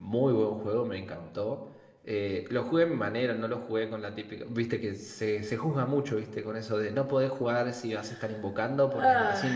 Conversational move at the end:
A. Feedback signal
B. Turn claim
A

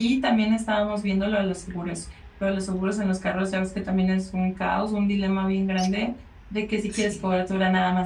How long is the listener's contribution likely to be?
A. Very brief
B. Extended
A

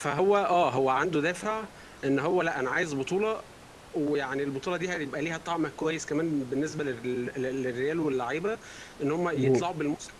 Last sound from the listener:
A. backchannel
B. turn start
A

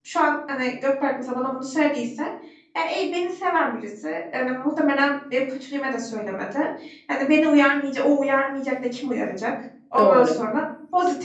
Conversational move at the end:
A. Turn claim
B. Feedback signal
B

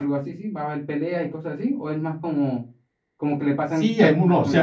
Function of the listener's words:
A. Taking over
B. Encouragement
A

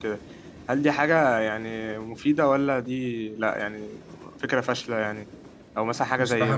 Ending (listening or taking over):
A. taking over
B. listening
B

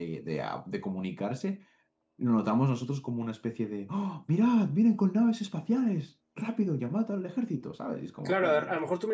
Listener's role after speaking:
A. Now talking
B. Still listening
A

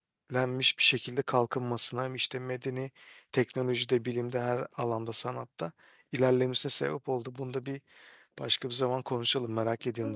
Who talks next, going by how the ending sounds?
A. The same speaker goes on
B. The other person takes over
B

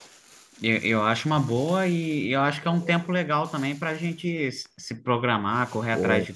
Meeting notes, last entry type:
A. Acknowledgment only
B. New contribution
A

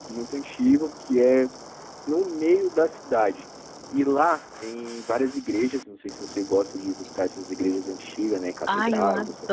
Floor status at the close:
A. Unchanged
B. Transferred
B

